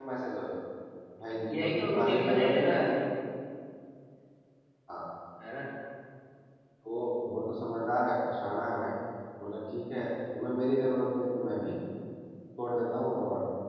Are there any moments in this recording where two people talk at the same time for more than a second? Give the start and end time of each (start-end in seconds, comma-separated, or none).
1.5-3.0